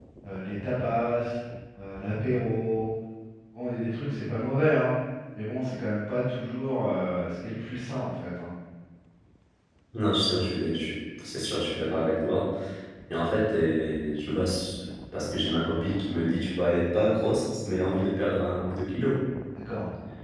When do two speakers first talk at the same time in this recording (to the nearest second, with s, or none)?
none